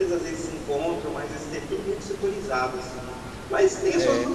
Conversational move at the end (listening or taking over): listening